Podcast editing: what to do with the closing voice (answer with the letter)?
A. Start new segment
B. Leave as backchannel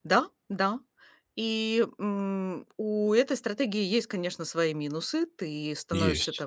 B